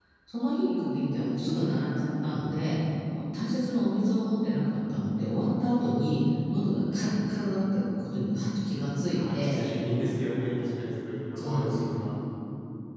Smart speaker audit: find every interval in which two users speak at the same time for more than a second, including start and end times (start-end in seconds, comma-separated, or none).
none